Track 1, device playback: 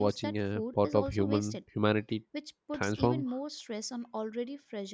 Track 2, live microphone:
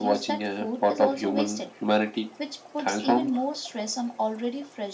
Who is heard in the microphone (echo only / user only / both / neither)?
echo only